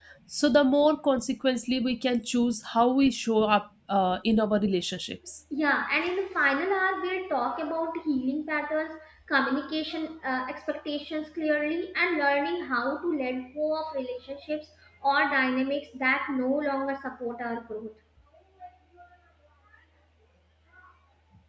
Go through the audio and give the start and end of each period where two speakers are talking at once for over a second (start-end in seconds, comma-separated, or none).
none